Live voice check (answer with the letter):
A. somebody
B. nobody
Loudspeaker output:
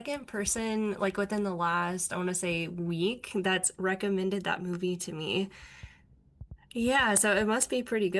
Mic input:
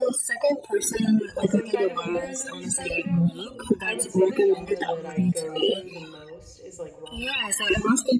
A